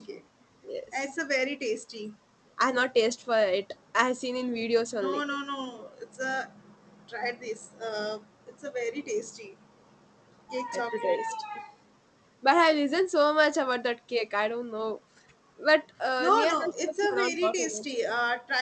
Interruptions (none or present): present